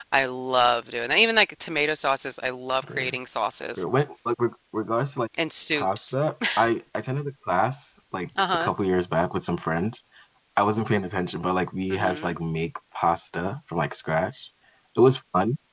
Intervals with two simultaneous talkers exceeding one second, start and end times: none

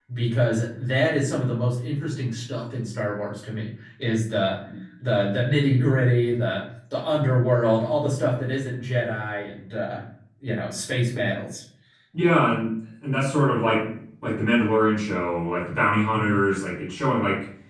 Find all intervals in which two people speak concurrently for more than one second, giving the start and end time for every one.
none

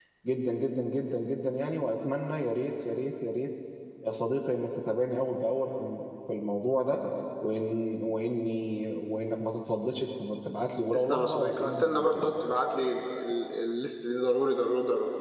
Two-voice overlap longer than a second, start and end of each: 11.1-12.3

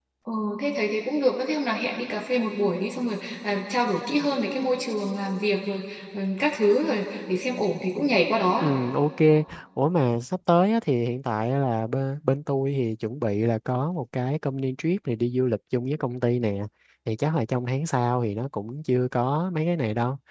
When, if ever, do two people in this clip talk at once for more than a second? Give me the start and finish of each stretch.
none

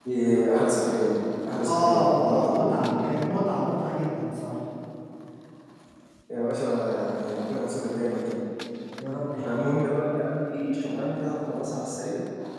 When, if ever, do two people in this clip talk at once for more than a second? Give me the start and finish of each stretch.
1.6-3.1

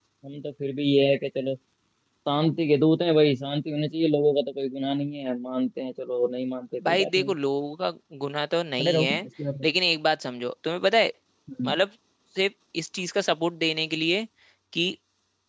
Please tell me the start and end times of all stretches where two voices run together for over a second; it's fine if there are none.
none

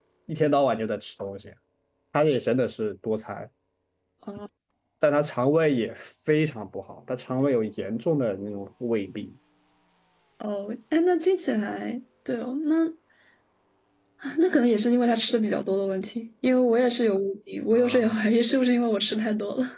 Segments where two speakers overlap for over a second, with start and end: none

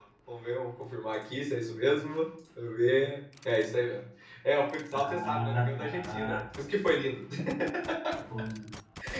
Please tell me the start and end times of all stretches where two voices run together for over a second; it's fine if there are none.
5.0-6.4

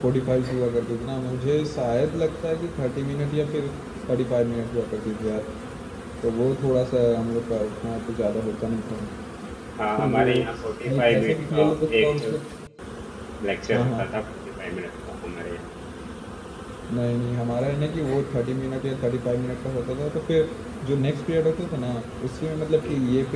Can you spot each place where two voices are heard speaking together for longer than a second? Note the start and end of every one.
10.9-12.4

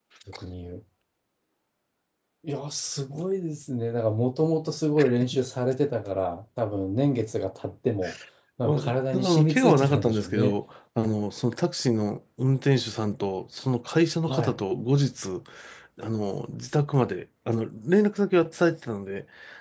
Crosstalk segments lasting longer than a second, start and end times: 8.7-10.6

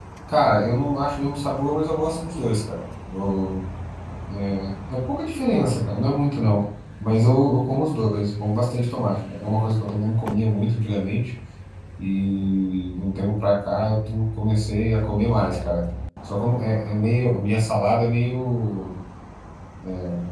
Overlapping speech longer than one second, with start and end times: none

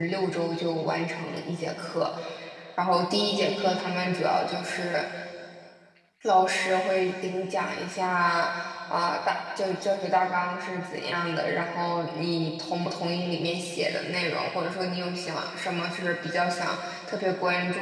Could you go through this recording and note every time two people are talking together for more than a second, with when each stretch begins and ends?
none

